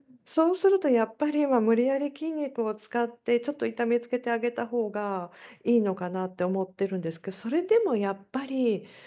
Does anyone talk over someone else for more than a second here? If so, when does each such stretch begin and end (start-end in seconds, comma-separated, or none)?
none